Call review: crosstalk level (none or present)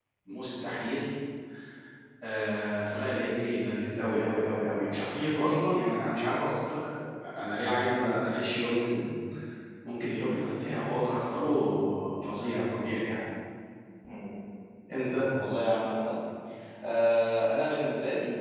none